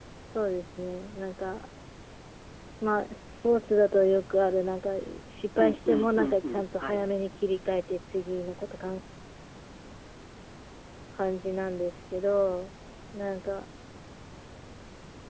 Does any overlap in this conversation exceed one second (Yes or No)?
Yes